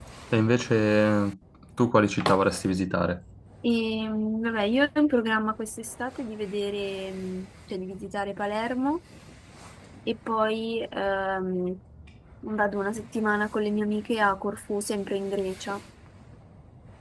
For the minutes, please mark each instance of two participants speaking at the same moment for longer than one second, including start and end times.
none

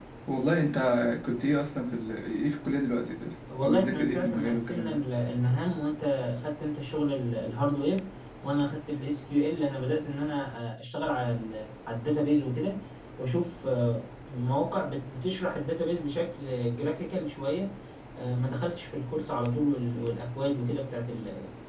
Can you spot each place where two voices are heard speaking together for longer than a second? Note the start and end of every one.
3.6-5.0

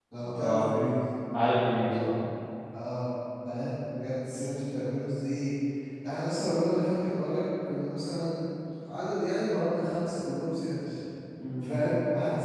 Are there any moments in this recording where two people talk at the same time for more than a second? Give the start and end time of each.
none

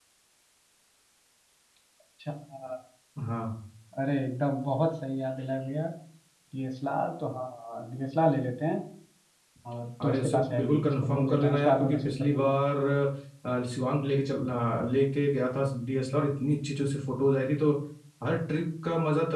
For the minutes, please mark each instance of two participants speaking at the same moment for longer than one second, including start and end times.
10.1-12.5

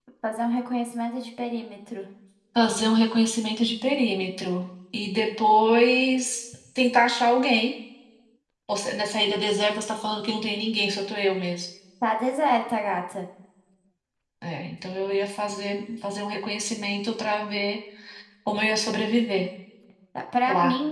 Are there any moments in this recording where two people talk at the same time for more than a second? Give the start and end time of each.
none

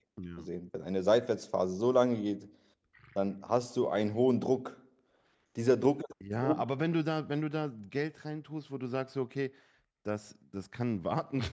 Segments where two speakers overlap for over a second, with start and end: none

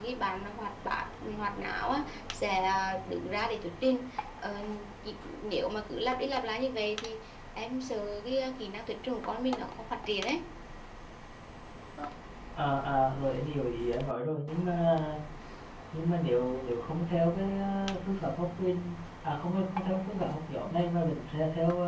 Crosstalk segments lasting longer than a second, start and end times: none

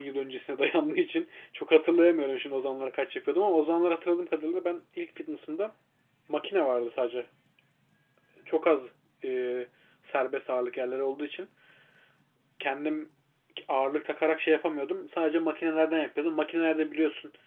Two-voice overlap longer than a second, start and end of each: none

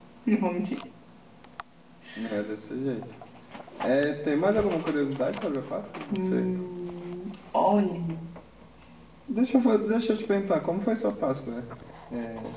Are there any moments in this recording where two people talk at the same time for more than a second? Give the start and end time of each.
none

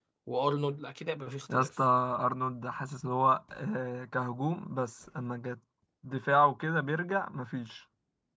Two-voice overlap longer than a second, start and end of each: none

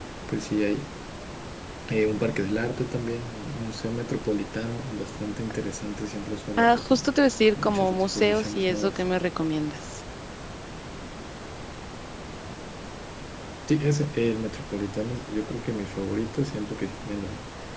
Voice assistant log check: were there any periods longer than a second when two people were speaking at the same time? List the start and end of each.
7.6-9.0

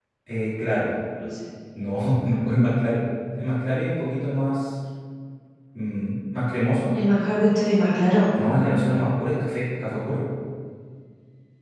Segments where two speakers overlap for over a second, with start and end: none

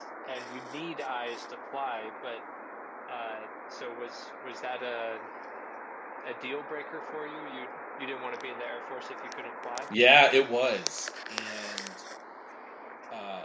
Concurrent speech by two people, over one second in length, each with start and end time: none

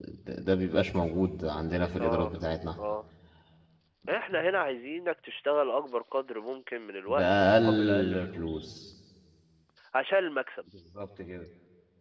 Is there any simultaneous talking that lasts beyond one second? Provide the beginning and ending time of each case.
7.1-8.7

